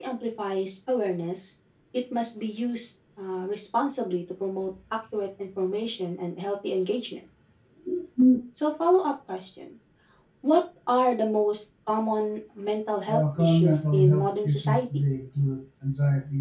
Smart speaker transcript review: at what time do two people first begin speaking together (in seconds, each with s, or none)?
13.1 s